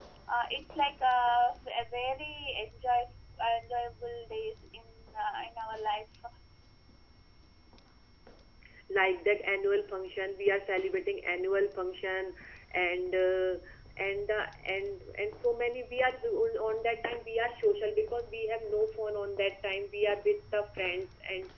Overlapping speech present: No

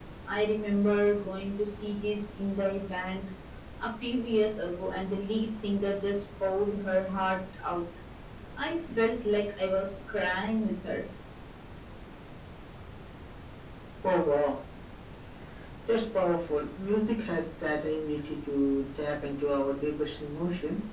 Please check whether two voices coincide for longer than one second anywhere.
No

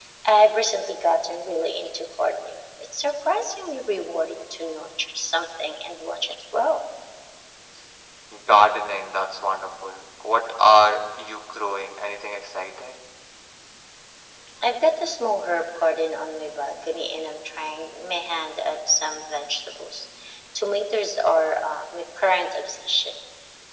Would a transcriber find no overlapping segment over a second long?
Yes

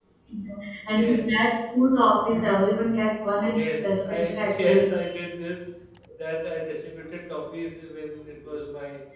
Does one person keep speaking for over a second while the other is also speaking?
Yes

